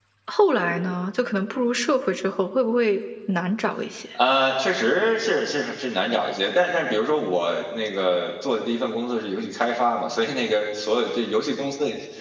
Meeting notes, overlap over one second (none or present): none